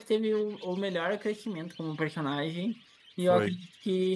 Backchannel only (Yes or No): Yes